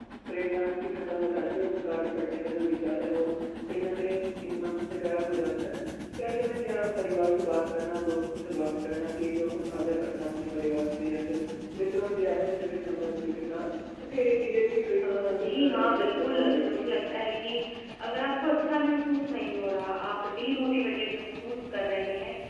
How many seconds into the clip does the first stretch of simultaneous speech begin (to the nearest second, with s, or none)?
15 s